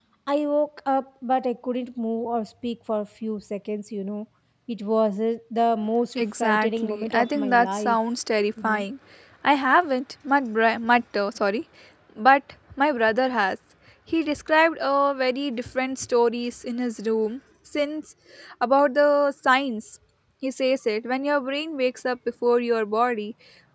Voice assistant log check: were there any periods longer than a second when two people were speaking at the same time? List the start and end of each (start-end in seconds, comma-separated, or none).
6.2-8.0